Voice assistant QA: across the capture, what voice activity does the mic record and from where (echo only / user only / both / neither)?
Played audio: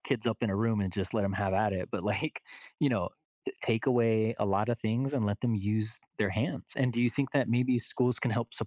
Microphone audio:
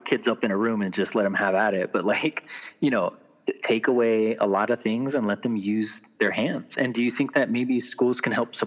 echo only